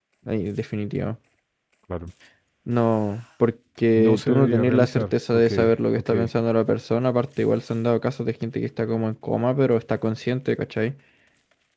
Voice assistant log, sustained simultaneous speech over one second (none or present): present